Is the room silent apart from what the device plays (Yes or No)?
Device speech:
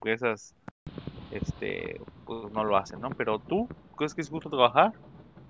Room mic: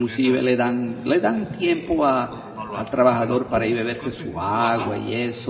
No